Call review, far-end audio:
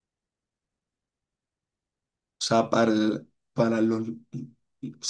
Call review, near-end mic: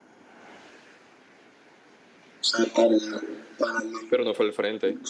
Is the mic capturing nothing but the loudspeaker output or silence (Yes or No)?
No